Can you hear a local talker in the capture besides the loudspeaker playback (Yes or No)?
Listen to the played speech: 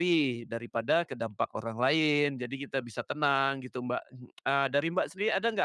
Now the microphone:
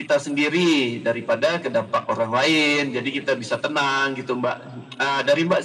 No